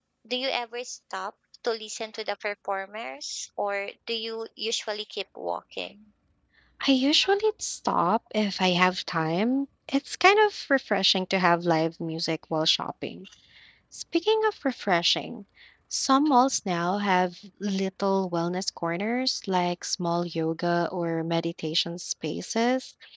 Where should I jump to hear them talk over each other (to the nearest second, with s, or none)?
none